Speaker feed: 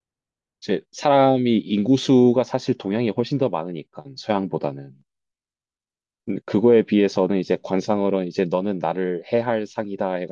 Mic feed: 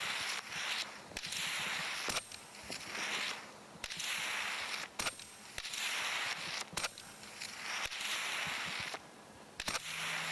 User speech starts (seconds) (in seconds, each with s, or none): none